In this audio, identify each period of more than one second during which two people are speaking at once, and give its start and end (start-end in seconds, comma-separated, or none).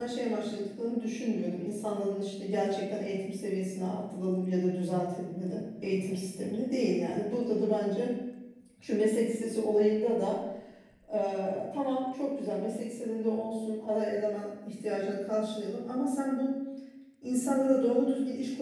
none